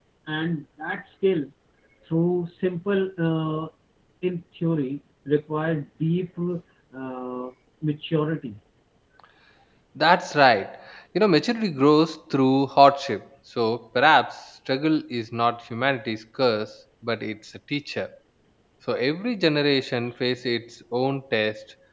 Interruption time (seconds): none

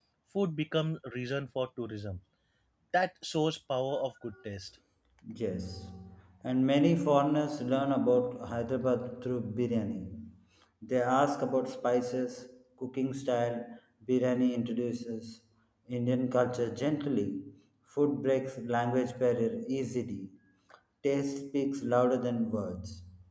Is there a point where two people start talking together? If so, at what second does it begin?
none

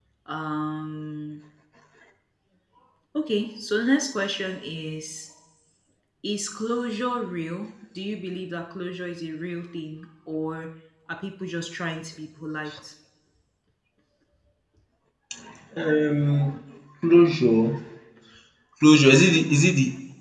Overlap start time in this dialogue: none

